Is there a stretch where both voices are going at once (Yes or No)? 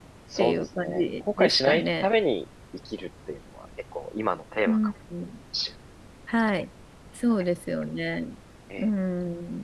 Yes